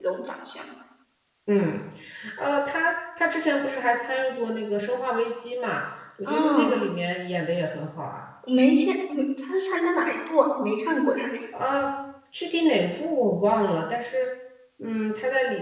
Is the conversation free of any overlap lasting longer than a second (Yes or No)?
Yes